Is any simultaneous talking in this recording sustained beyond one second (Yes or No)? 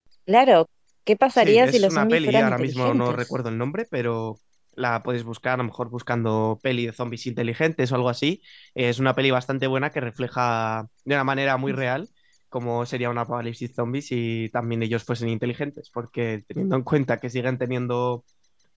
Yes